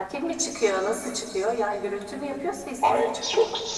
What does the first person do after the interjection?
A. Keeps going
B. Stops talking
B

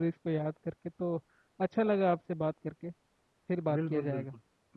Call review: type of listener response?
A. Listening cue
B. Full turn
B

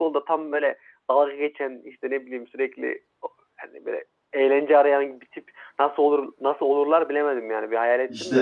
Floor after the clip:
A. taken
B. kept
A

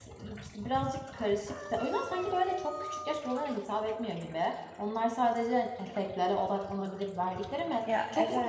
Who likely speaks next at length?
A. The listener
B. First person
B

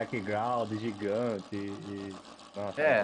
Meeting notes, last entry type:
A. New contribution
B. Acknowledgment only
A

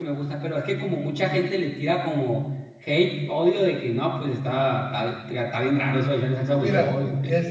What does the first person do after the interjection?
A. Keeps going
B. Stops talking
B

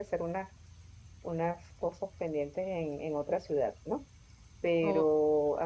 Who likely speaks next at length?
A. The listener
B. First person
B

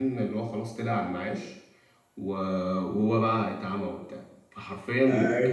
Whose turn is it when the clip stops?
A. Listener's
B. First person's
A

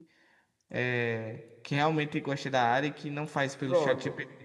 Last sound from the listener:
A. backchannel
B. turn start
B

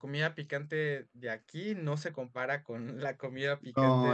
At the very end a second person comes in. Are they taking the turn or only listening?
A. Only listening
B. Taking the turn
B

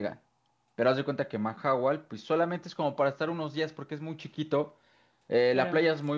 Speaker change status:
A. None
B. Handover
A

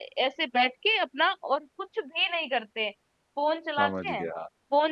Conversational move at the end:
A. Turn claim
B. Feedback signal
B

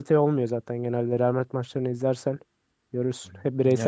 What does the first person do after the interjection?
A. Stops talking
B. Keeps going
A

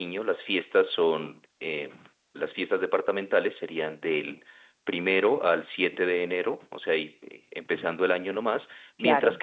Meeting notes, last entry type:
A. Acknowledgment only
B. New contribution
A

